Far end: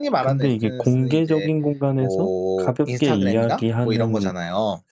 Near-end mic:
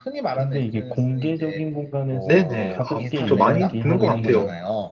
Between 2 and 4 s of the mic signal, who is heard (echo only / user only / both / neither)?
both